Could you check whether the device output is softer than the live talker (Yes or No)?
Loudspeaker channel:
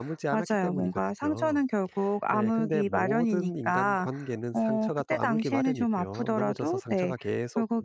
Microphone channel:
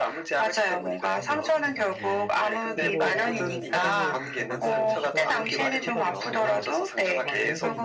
No